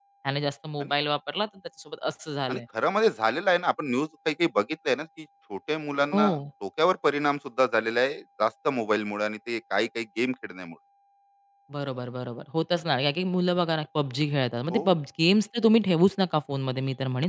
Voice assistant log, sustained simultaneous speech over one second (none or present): none